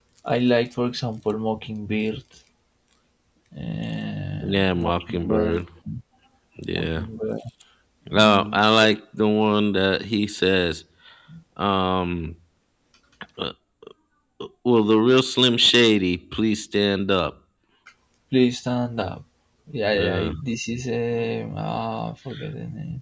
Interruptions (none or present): present